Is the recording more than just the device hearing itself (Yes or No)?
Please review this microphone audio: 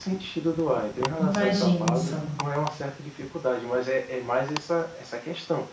Yes